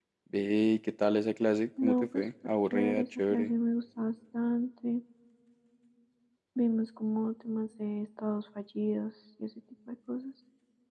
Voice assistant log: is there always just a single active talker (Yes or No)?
No